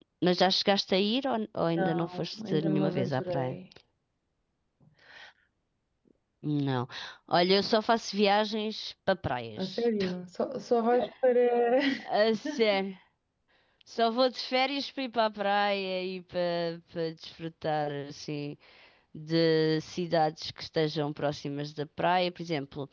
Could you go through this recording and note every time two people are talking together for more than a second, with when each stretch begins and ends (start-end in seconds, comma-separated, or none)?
1.8-3.5